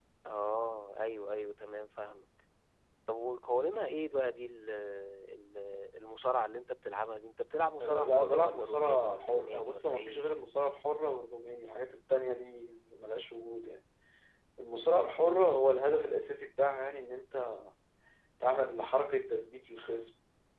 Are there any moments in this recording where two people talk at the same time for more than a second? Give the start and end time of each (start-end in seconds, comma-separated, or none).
7.8-10.2